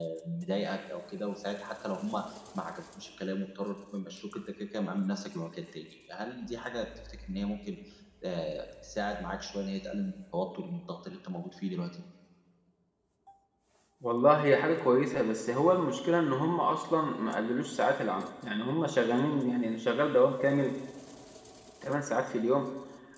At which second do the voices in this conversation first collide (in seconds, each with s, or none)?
none